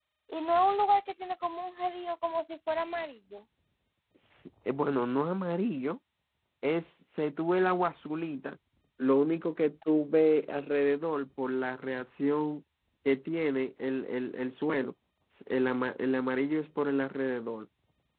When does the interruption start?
none

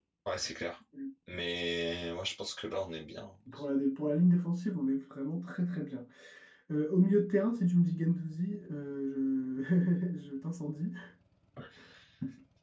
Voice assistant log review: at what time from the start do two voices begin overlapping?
none

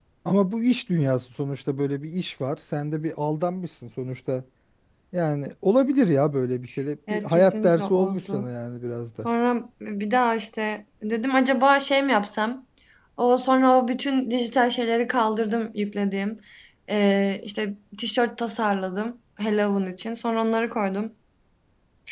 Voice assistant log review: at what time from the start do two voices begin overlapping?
7.1 s

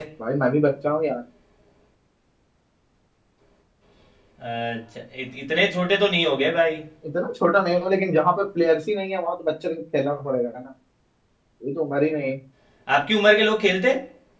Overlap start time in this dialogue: none

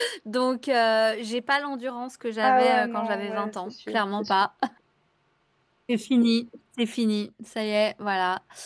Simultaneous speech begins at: 2.4 s

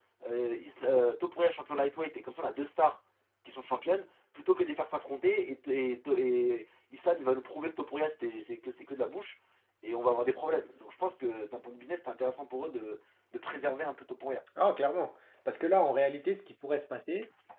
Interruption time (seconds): none

